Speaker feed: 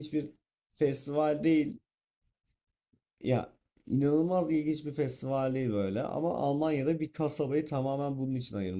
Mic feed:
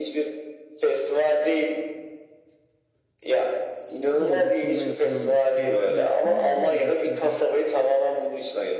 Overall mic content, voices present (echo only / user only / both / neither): both